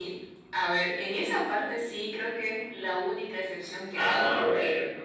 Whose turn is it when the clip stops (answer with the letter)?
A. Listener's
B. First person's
B